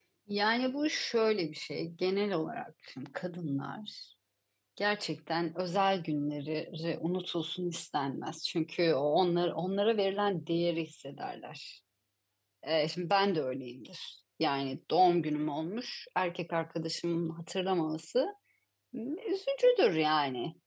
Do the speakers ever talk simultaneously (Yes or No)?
No